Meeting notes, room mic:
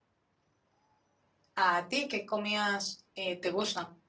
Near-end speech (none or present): present